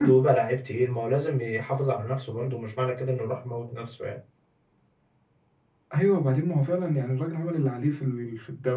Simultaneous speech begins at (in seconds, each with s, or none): none